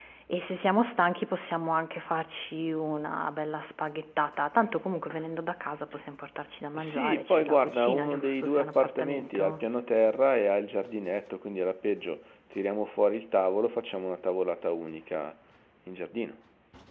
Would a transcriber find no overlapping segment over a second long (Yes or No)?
No